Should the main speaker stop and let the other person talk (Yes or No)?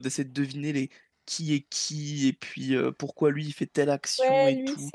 Yes